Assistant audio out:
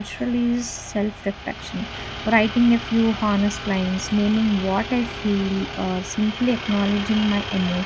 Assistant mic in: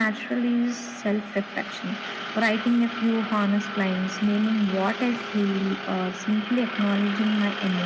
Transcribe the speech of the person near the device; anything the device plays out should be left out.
none

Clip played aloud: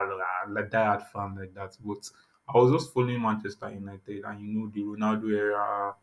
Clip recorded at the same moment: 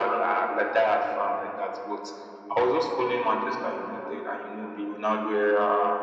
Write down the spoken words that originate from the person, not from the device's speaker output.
none

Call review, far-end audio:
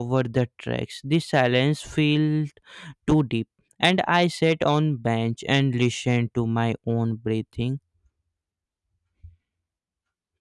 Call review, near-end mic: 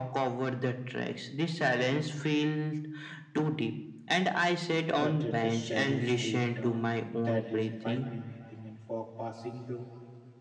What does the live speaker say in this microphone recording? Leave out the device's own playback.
but at the shadow stayed dark. That is frightening, I think. And fog passing though,

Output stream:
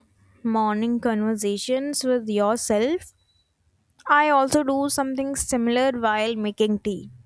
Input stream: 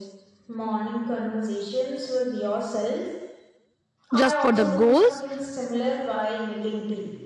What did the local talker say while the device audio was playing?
just for the goals

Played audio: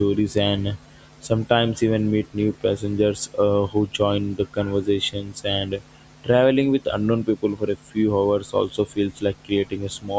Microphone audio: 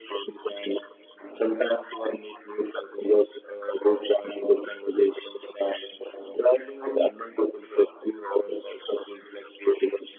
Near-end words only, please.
none

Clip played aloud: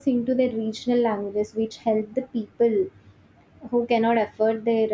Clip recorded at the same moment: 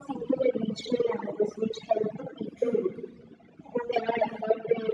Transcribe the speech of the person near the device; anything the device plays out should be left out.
True,

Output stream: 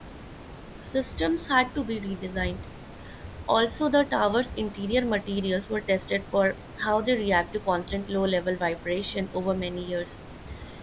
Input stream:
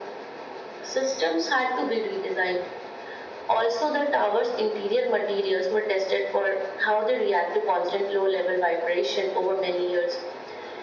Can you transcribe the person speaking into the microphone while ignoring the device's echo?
none

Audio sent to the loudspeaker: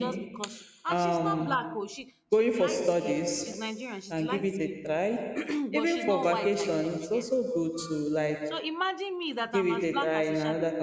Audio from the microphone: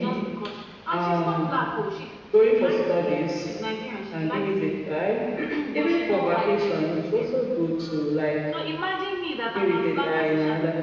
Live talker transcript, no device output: none

